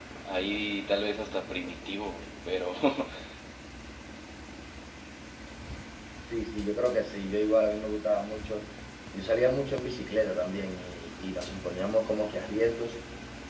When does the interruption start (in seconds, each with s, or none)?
none